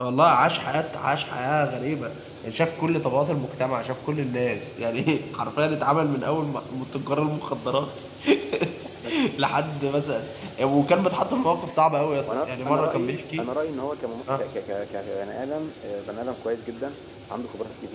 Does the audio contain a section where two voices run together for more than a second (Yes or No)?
Yes